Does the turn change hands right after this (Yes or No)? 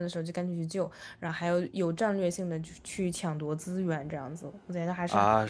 Yes